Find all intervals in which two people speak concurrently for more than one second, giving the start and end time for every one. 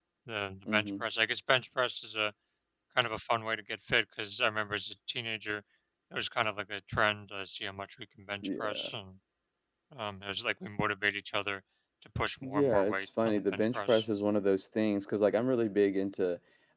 12.4-14.0

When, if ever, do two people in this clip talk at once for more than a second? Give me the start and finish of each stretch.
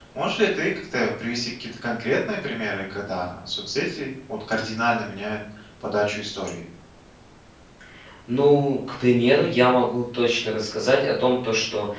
none

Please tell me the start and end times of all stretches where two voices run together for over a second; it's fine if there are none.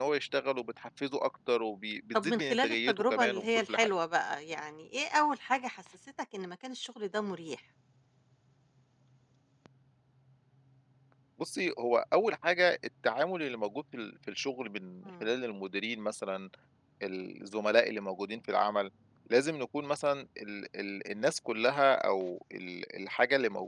2.1-3.9

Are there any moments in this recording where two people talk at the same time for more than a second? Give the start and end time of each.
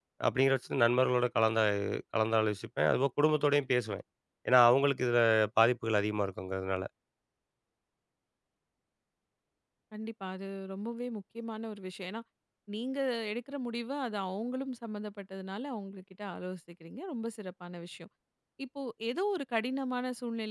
none

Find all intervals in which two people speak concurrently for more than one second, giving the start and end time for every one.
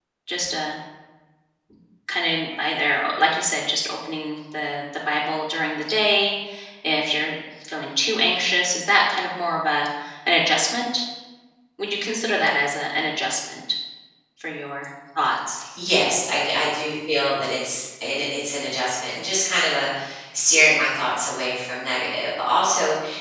none

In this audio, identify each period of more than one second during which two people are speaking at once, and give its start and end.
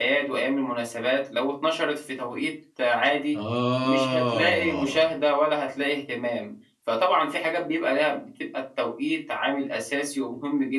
3.8-5.0

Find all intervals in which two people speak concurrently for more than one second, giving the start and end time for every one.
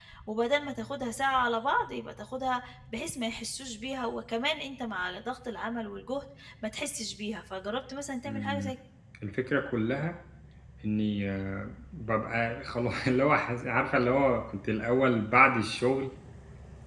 none

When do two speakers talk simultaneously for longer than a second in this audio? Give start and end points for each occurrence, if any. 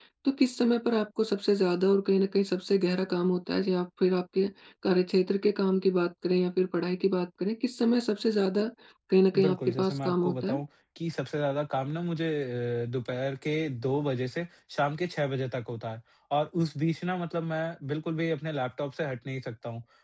9.4-10.6

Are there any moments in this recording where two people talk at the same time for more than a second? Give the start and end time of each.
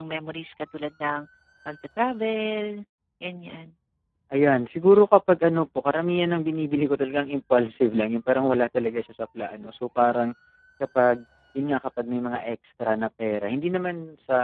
none

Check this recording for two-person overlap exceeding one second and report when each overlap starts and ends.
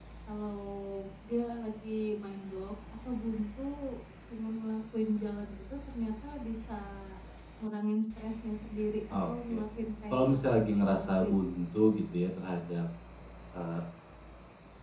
10.1-11.7

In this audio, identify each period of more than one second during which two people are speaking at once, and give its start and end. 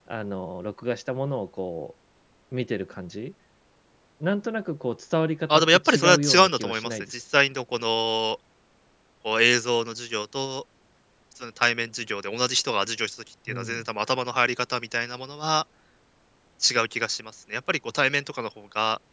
5.5-7.1

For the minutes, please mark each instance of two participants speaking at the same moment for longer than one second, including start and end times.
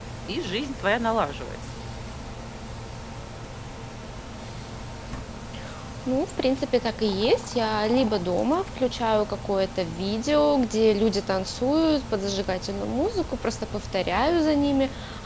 none

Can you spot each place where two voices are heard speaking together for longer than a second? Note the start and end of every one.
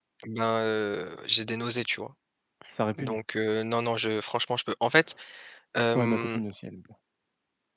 none

